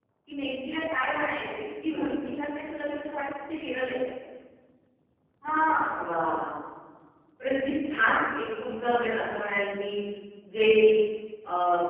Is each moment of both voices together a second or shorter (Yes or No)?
Yes